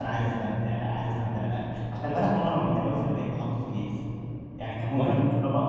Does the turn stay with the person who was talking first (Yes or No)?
Yes